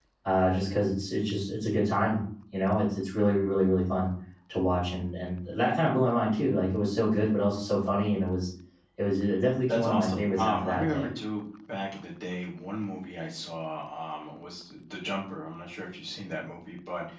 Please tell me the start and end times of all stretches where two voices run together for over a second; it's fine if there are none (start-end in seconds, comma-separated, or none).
9.7-11.1